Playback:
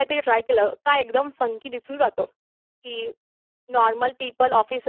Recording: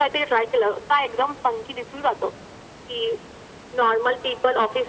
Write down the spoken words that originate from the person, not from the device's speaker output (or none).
none